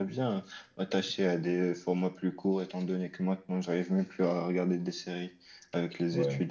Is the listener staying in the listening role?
No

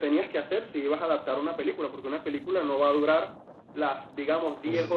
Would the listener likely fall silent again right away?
Yes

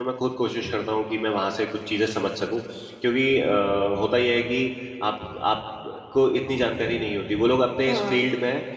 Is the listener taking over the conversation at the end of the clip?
No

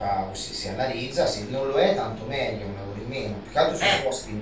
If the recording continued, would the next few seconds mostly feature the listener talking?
No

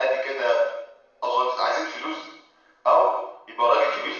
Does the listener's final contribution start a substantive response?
No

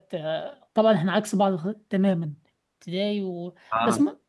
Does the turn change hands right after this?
No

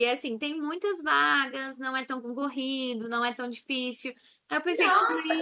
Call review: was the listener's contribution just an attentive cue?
No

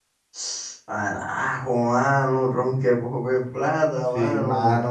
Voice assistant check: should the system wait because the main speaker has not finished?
No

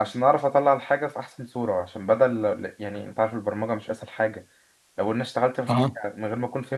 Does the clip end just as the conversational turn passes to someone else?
No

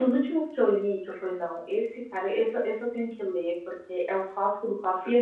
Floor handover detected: No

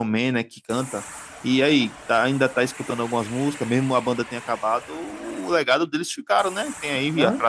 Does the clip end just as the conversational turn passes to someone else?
No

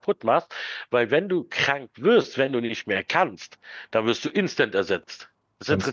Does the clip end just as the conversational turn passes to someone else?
No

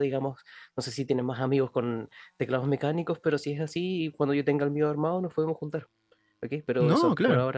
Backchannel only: Yes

